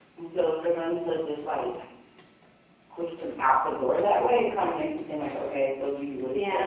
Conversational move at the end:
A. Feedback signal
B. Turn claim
B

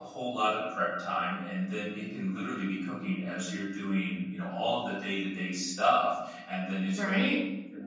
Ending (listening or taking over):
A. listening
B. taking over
A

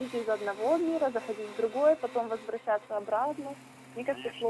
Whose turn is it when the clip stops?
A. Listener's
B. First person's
A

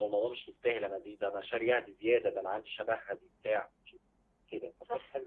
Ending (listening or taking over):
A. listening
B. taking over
B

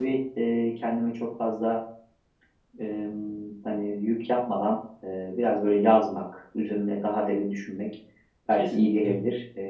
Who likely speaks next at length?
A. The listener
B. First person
B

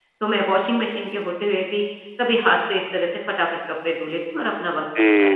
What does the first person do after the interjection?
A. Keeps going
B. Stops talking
B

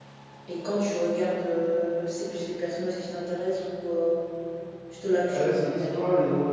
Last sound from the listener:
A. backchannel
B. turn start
B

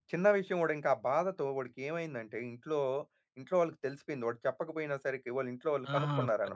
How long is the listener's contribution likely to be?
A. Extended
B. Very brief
A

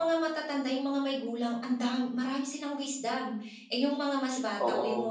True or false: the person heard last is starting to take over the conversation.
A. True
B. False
B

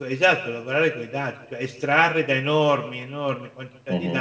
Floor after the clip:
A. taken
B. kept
B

